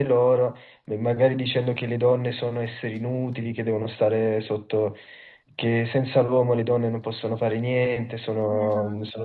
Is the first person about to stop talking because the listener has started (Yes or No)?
No